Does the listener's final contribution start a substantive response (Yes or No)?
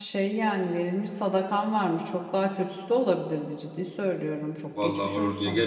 Yes